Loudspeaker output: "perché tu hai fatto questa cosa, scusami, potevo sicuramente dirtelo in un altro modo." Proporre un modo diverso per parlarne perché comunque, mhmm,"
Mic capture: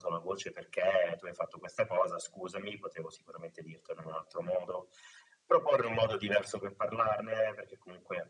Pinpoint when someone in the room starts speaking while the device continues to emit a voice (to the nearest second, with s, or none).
none